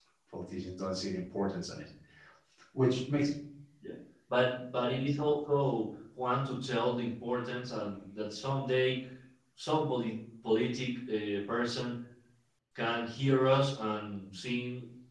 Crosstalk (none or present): none